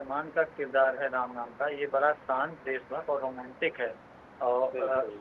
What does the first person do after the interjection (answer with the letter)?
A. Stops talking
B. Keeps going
B